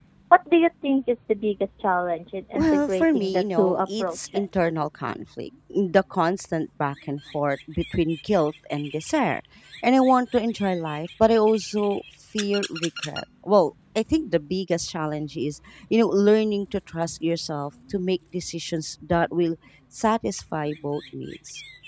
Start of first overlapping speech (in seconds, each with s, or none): 2.6 s